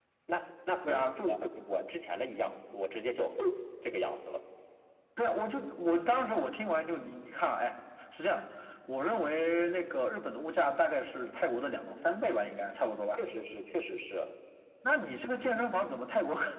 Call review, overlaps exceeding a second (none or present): none